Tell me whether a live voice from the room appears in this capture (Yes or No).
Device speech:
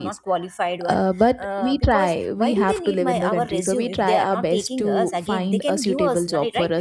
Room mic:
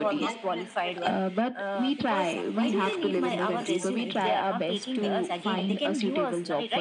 Yes